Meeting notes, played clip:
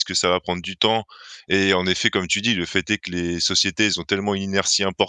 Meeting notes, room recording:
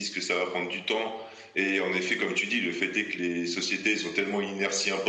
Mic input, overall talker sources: echo only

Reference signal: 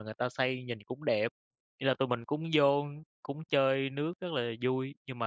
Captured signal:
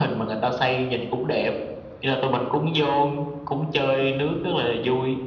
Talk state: echo only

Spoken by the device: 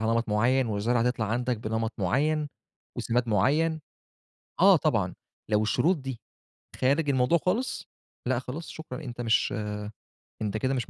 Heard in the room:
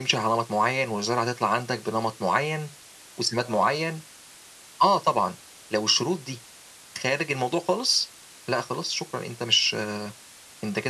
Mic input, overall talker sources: both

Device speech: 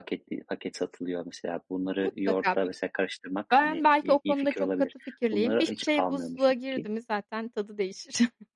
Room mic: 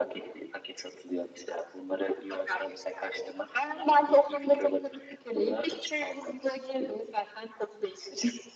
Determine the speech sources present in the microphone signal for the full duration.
echo only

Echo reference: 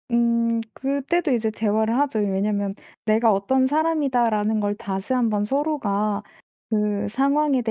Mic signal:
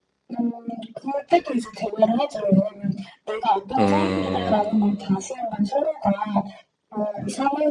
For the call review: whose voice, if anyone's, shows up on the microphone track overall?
both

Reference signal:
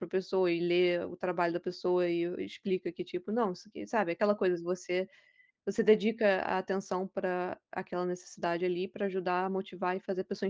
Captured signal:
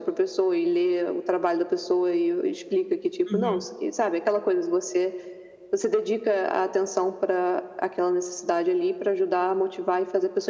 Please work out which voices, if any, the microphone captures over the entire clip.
both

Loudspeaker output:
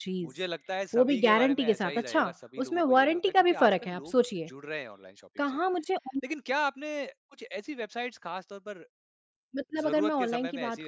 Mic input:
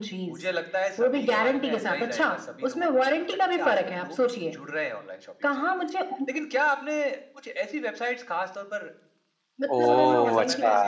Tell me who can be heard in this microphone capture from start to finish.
both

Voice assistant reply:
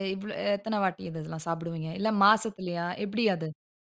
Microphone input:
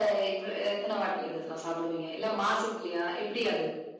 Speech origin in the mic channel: echo only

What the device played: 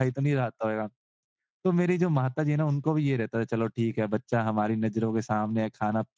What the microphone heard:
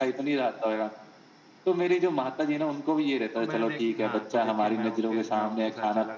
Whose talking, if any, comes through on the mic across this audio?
both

